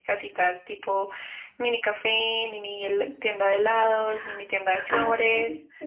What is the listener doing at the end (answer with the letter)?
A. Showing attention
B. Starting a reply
B